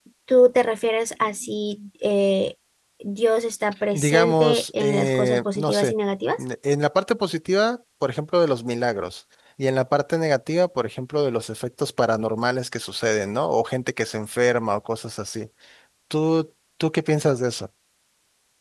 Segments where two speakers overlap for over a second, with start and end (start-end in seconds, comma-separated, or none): 3.9-5.9